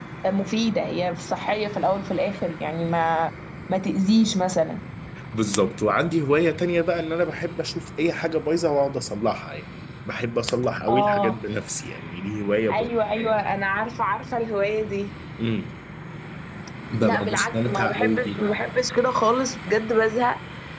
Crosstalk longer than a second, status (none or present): present